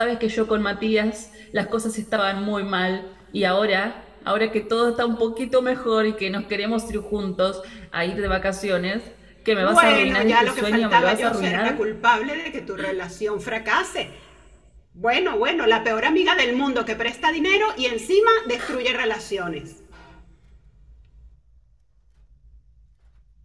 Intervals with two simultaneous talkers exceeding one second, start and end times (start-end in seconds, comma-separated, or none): 9.6-11.8